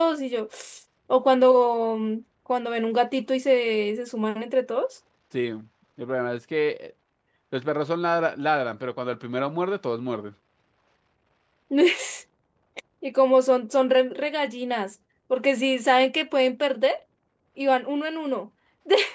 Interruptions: none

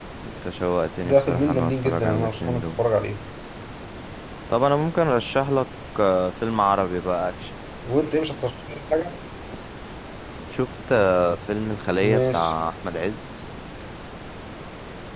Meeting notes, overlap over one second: present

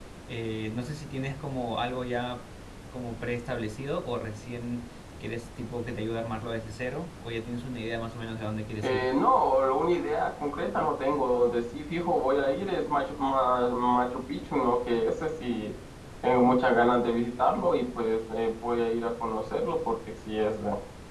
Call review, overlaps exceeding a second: none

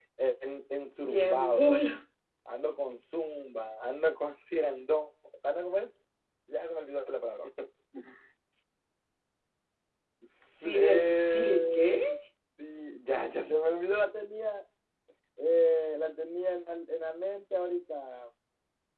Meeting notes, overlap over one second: present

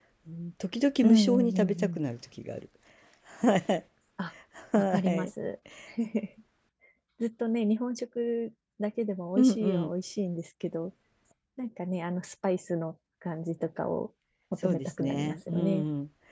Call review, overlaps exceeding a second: present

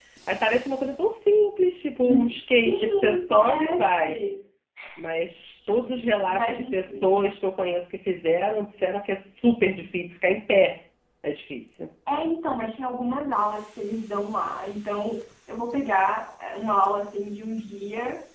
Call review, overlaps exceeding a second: present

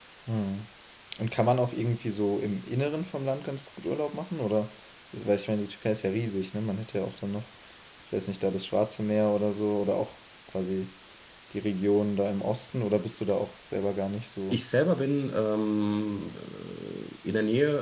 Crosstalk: none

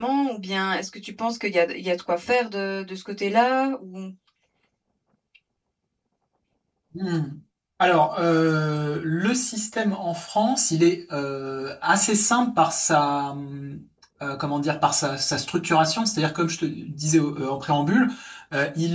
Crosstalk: none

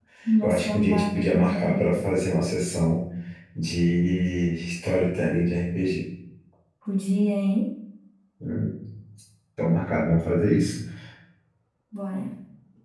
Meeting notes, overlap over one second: present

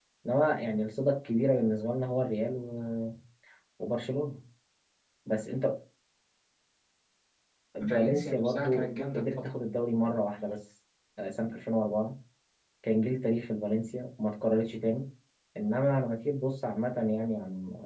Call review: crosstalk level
present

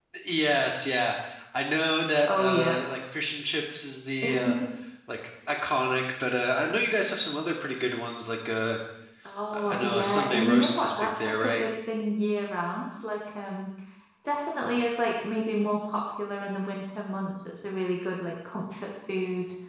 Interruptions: present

